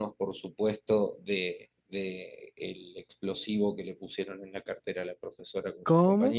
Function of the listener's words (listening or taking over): taking over